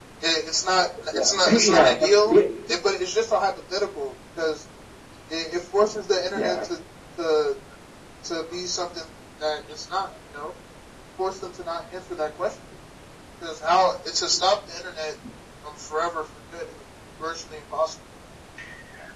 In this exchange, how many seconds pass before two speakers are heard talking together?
1.1 s

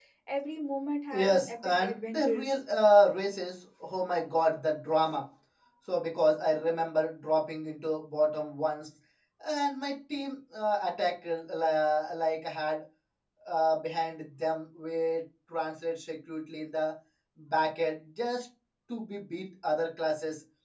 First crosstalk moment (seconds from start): 1.1 s

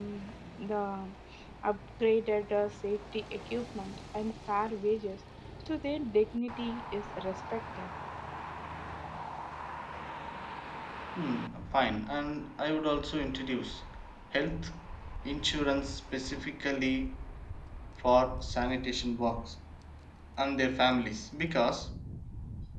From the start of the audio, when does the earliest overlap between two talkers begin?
none

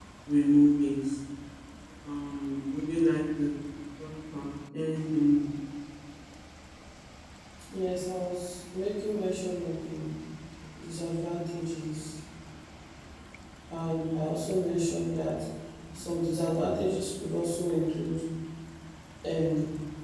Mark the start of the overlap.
none

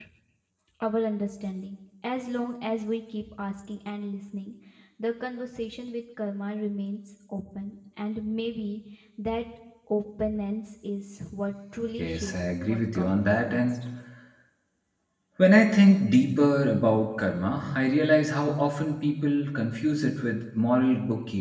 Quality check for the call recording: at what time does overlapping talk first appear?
12.0 s

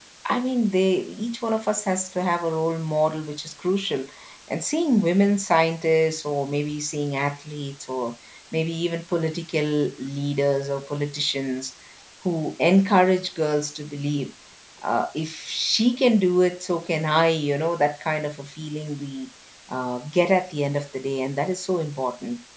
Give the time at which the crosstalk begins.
none

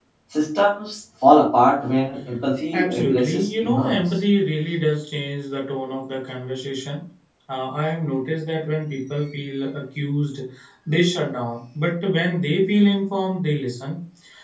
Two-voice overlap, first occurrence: 2.7 s

